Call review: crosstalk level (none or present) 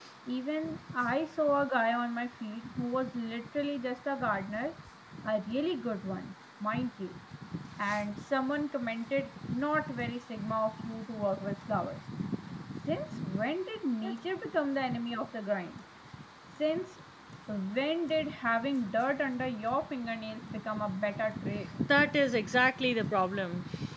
none